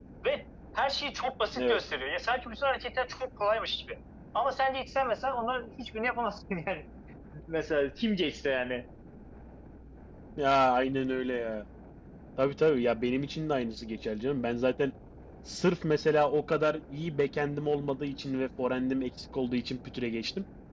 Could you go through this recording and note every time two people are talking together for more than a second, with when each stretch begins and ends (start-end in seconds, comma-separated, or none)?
none